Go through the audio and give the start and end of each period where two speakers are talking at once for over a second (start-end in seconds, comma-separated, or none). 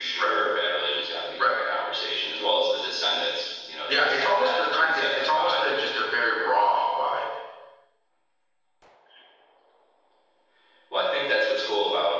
3.9-5.6